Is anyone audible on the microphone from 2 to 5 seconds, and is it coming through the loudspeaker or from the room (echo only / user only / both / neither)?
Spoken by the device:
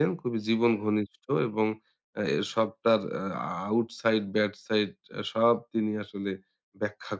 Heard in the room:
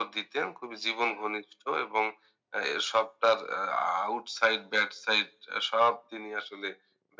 echo only